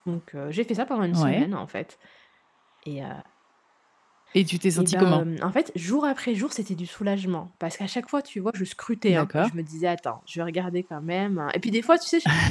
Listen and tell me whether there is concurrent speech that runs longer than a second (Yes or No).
No